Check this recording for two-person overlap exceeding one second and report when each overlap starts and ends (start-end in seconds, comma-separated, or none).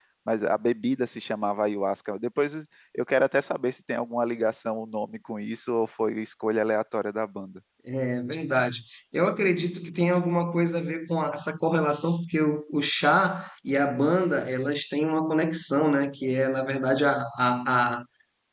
none